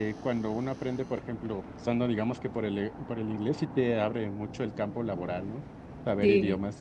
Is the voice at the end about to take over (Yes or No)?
Yes